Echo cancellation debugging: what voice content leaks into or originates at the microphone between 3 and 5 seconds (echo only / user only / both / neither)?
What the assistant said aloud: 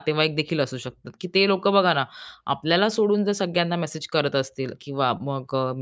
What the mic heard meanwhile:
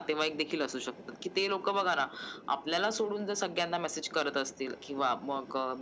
echo only